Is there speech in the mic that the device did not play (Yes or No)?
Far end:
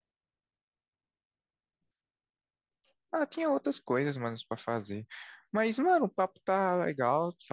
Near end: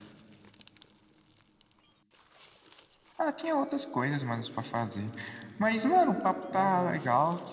Yes